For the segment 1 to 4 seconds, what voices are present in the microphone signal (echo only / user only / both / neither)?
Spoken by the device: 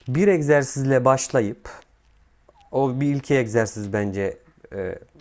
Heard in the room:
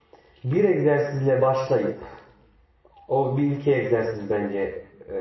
echo only